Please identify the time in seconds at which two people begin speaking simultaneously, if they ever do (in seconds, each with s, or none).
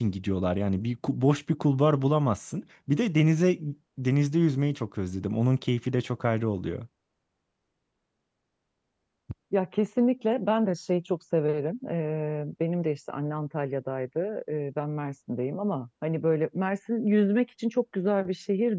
none